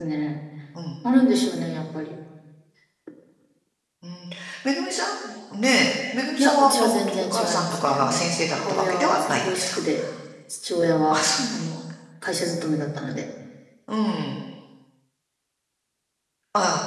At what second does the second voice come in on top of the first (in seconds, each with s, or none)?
6.4 s